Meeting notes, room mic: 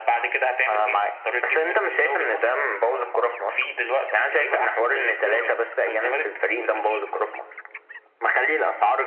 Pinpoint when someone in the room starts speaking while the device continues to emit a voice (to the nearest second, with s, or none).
none